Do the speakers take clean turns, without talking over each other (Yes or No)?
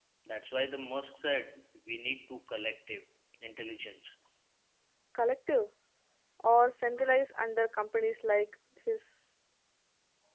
Yes